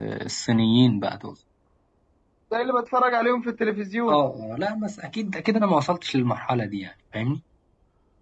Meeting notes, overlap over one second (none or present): none